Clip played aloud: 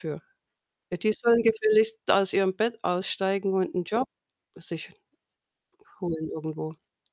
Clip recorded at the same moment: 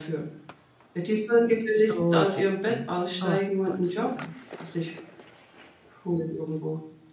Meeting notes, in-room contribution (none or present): present